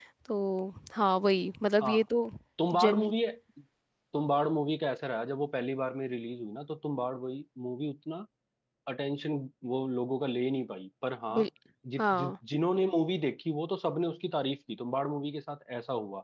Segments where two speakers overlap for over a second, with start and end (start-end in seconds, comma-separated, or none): none